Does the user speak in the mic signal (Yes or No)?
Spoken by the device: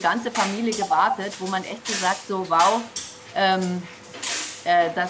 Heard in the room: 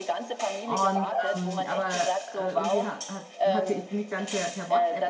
Yes